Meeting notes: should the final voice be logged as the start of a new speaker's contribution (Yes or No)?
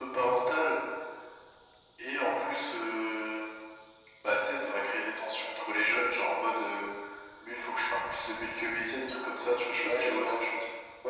Yes